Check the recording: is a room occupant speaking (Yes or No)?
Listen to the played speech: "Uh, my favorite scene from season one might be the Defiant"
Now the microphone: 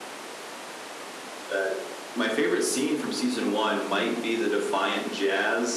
No